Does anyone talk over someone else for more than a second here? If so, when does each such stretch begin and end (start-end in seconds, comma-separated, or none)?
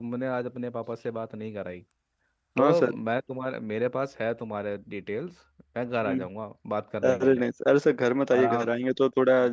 none